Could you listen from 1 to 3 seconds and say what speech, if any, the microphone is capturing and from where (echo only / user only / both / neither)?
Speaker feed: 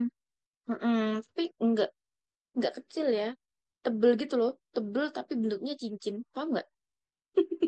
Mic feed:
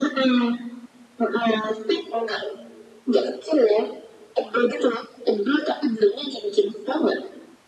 echo only